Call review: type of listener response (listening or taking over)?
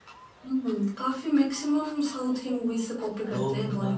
taking over